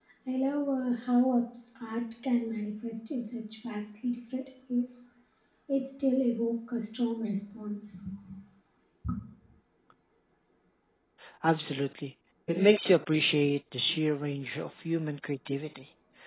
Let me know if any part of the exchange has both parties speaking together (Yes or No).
No